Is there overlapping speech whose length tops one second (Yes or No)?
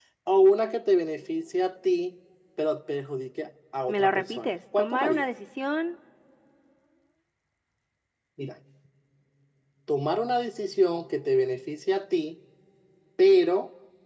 Yes